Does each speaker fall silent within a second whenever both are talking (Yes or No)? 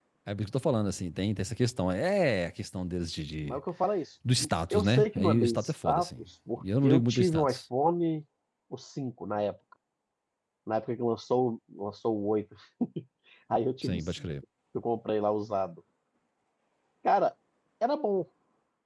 No